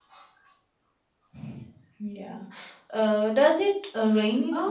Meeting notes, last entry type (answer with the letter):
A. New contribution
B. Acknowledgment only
A